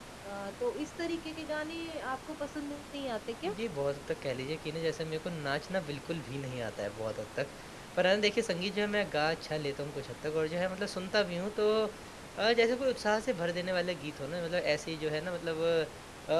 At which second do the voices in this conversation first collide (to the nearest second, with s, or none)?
none